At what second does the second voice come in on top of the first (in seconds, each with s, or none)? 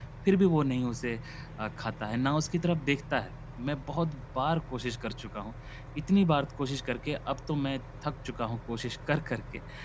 none